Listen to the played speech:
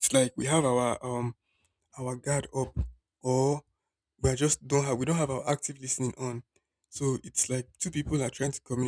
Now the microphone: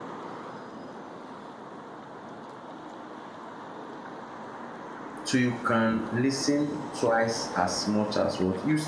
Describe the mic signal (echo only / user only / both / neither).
user only